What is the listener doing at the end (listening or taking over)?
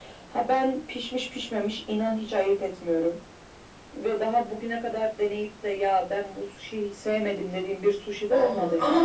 taking over